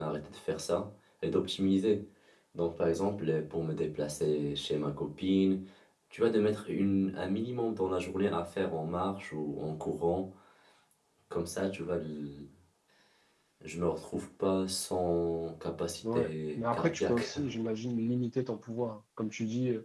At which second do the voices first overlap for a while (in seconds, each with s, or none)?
16.0 s